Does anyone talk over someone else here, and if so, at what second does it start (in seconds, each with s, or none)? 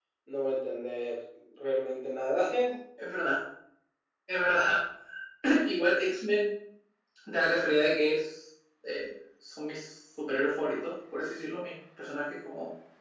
none